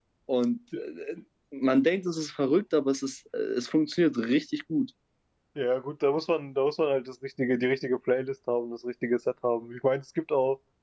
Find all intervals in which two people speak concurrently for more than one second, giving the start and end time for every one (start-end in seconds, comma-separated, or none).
none